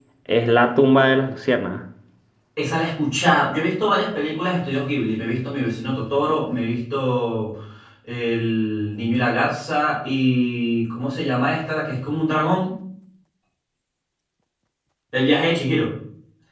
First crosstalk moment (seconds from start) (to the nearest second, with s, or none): none